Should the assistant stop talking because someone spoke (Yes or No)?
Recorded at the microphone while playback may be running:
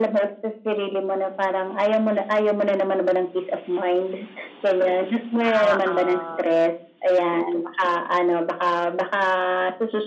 Yes